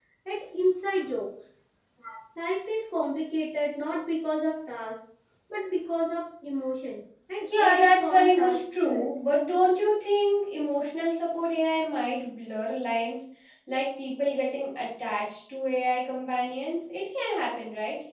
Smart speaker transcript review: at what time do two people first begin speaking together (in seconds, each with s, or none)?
7.5 s